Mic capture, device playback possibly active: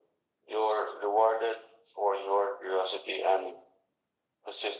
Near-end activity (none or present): none